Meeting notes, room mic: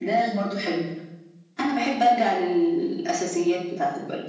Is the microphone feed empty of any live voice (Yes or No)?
Yes